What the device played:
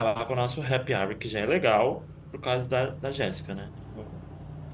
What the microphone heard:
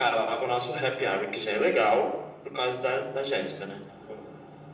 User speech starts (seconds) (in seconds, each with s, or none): none